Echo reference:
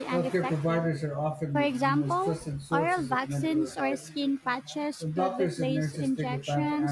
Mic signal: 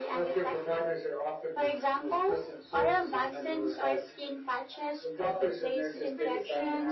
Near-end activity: present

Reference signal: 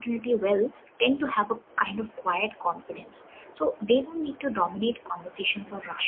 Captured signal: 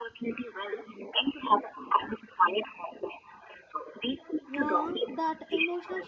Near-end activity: present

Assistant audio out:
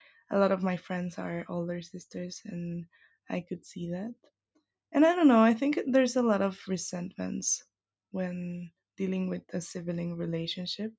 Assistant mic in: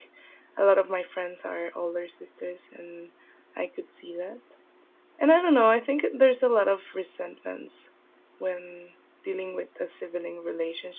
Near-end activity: none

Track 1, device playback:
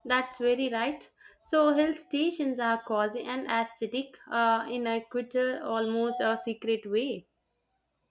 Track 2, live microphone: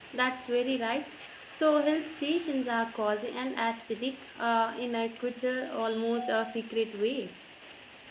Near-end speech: none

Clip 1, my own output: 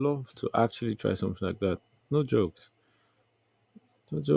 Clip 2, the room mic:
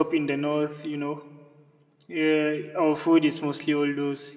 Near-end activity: present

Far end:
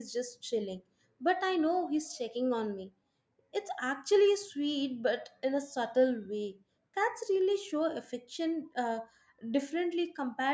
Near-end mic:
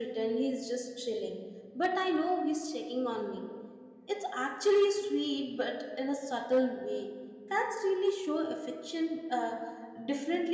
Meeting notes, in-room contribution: none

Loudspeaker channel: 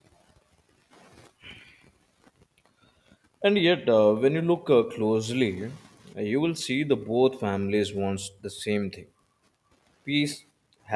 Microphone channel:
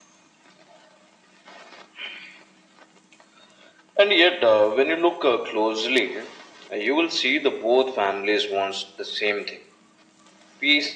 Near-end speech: none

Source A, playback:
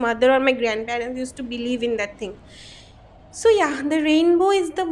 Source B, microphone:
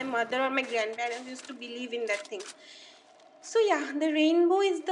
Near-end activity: none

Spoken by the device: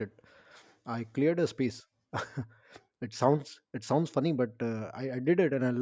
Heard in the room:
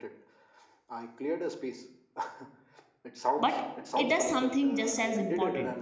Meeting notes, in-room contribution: present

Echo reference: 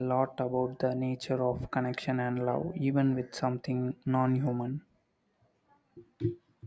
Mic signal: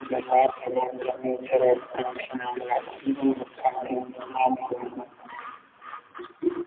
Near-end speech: none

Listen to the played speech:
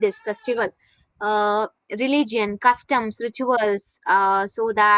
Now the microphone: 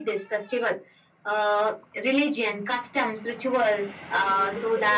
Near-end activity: present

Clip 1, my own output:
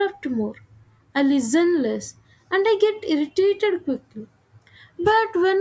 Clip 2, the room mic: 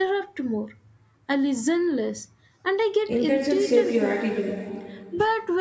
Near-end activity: present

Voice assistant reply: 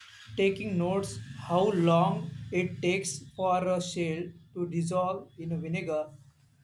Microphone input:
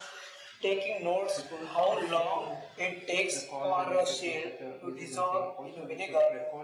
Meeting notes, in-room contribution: present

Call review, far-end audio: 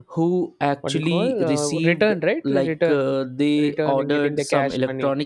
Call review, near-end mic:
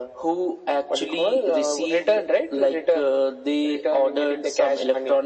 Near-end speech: none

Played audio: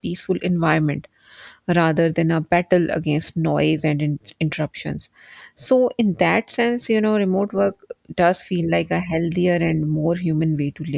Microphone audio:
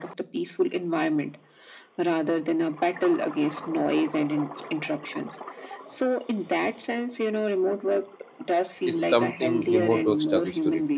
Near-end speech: present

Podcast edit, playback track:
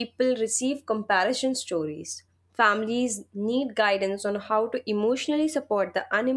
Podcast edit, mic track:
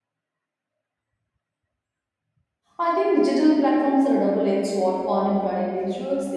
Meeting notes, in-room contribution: present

